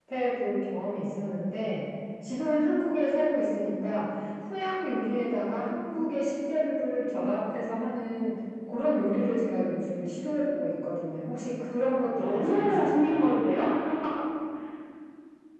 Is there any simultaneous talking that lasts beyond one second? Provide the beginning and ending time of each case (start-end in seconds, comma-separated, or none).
12.2-13.4